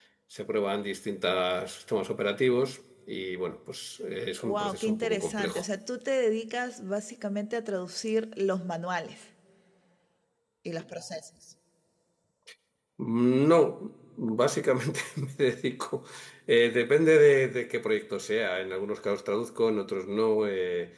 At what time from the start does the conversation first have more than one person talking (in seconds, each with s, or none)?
4.4 s